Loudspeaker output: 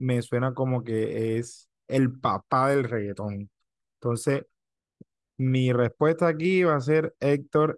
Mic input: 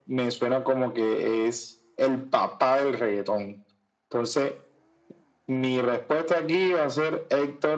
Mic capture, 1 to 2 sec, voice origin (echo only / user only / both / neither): echo only